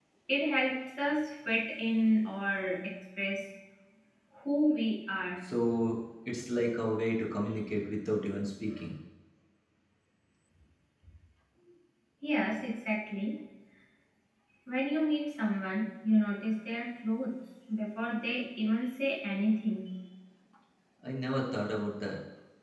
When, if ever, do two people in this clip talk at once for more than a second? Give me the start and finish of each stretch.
none

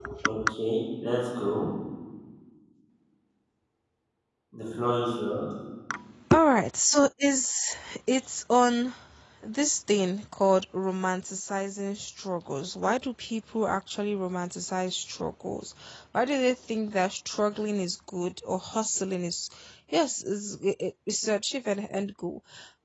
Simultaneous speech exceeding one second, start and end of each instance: none

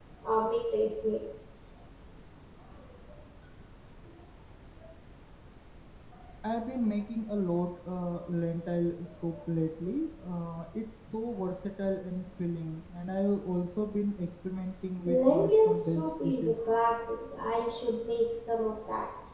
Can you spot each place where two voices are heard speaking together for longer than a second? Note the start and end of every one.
15.1-16.5

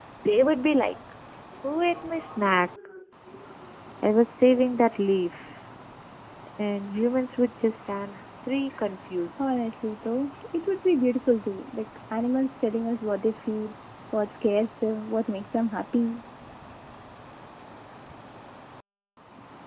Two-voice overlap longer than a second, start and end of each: none

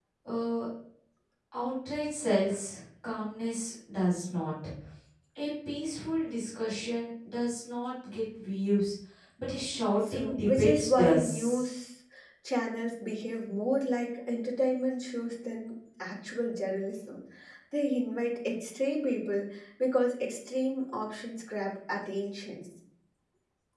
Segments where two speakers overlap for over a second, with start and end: 10.1-11.7

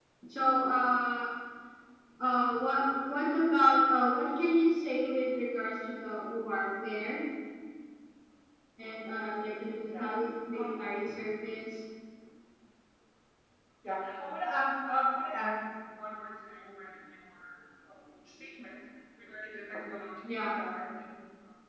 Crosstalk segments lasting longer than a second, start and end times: none

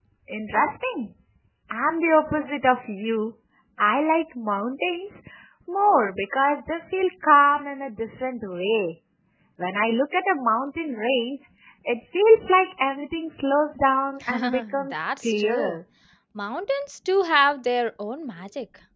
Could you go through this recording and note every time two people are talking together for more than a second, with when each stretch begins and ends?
14.3-15.8

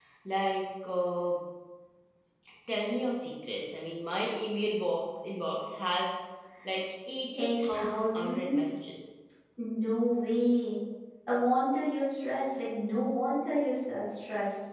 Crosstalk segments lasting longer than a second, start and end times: 7.3-8.6

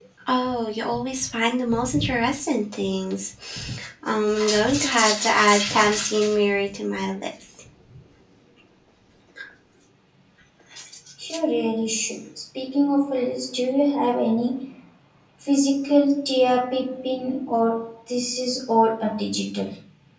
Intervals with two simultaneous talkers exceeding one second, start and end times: none

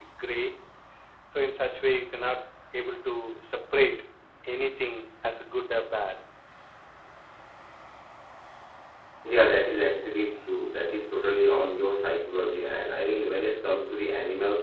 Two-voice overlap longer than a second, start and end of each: none

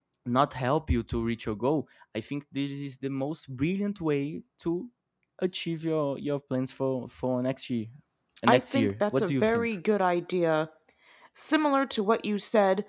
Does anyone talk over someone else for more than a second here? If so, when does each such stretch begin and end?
8.5-9.7

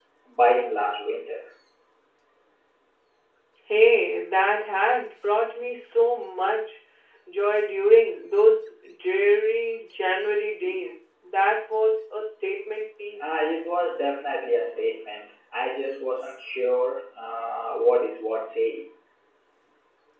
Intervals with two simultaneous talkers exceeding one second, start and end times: none

